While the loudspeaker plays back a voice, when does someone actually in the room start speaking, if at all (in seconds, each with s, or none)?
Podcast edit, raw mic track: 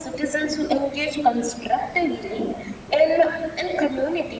none